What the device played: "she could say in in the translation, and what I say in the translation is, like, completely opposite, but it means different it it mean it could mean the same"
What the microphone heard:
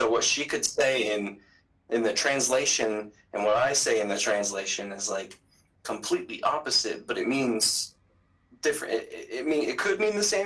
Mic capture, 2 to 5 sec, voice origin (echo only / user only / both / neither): echo only